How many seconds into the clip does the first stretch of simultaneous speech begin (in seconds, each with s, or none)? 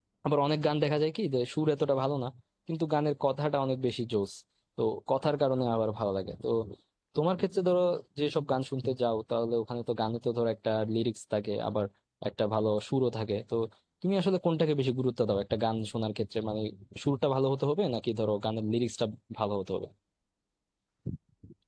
none